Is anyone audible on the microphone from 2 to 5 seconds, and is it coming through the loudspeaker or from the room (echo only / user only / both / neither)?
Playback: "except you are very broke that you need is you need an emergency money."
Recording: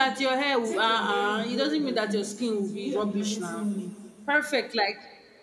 both